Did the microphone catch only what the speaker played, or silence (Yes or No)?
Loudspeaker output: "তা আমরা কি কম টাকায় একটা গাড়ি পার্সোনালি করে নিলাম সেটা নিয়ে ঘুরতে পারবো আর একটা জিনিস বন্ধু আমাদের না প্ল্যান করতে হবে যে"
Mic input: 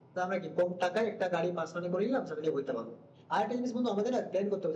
Yes